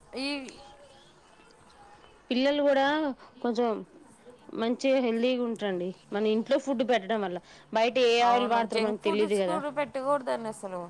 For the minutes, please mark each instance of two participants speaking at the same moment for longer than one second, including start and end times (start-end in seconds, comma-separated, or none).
8.3-9.6